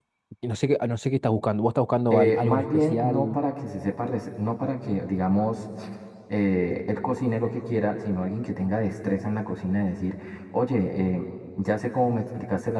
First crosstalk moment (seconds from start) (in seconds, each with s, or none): 2.1 s